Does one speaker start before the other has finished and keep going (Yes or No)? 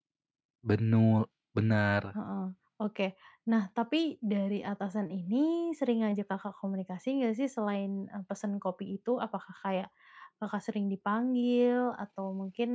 No